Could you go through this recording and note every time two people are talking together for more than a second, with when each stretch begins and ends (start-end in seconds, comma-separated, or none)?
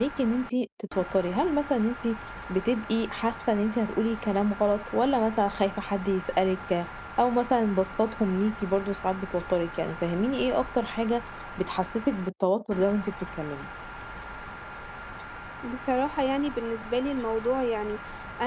none